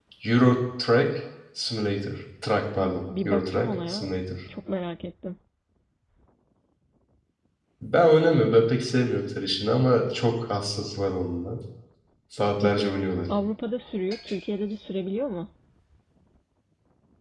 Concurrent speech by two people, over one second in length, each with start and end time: 2.8-4.1

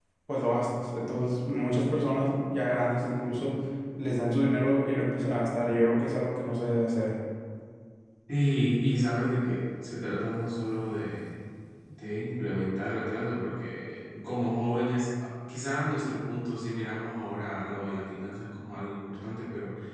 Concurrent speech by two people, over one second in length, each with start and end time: none

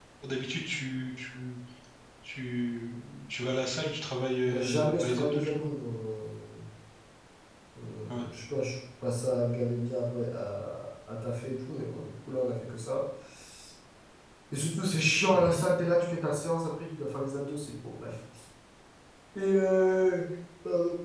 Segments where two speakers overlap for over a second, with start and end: 4.5-5.7

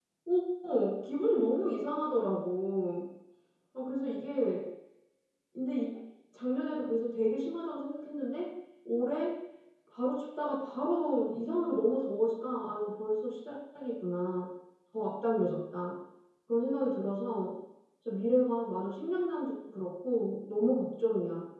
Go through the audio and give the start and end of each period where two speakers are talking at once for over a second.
none

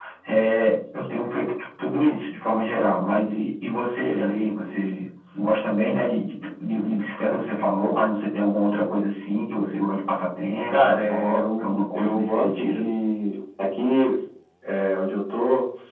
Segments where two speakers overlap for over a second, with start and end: 10.7-12.9

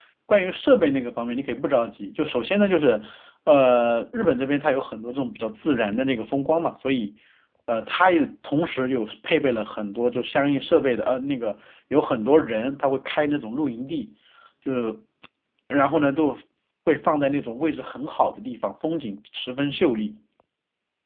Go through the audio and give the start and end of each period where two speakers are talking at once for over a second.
none

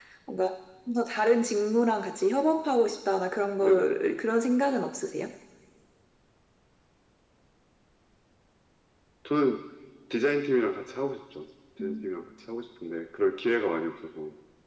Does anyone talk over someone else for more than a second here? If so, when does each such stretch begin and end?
none

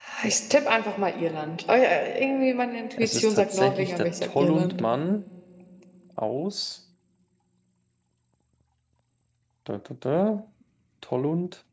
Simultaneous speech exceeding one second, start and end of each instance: 3.0-4.8

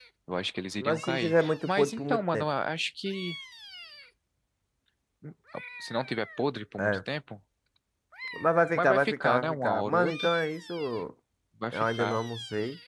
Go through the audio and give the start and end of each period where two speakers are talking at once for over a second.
0.8-2.5, 8.7-10.3

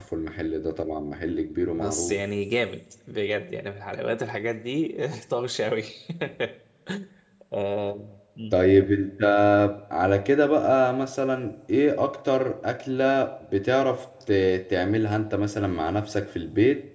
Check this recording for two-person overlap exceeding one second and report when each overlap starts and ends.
none

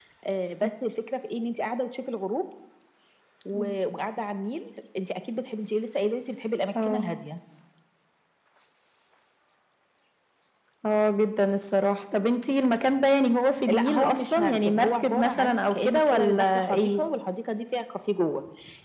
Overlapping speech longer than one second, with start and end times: 13.7-17.0

